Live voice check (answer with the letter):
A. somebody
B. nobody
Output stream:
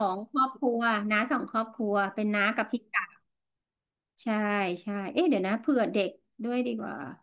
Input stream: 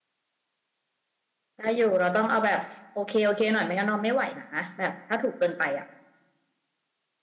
A